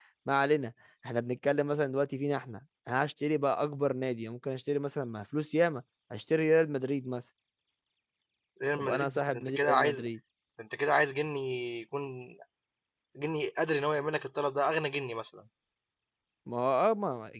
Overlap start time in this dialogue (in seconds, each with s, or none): 8.8 s